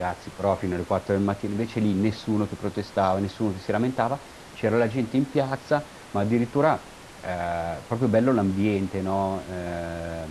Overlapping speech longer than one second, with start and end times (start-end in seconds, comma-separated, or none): none